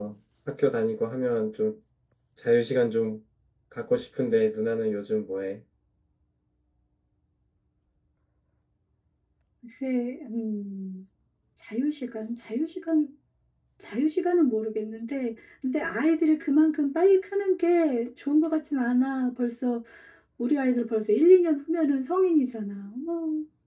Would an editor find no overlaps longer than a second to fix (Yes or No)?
Yes